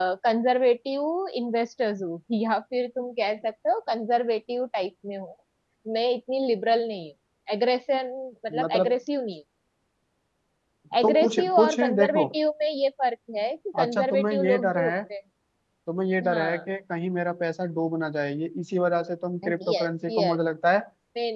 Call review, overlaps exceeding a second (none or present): present